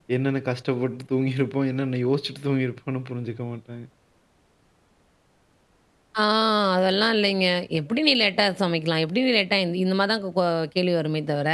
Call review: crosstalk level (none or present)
none